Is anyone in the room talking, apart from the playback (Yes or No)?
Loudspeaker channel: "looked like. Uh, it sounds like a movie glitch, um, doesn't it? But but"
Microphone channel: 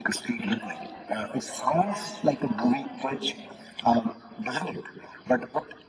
Yes